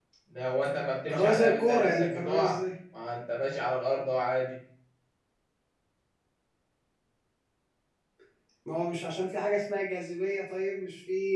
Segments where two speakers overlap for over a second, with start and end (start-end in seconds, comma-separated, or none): 1.1-2.6